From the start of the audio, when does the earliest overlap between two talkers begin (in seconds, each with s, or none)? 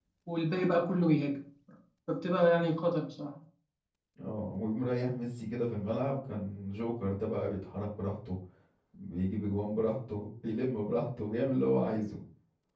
none